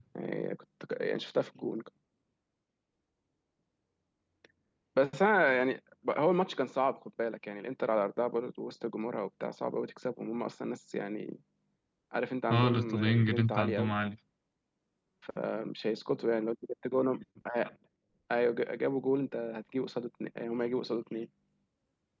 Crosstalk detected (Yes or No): Yes